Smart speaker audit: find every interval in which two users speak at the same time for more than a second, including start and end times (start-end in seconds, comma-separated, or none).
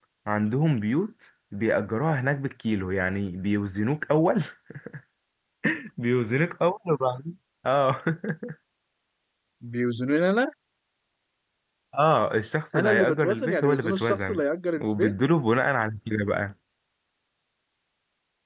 12.8-14.4